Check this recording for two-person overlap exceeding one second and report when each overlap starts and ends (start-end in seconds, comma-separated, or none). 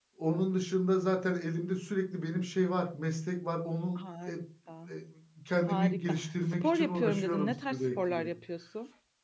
5.7-8.3